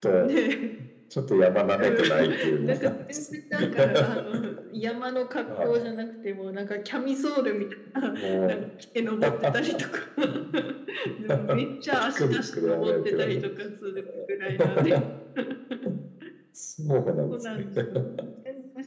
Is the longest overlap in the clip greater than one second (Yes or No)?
Yes